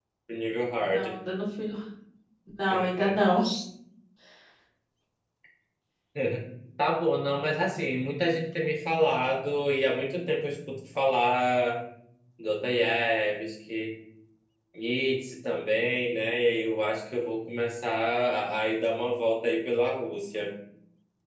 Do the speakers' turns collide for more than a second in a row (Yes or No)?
No